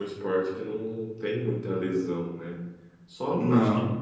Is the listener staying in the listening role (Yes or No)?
Yes